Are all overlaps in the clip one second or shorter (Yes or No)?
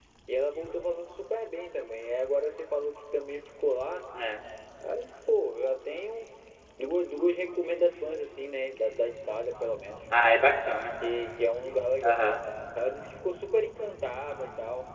Yes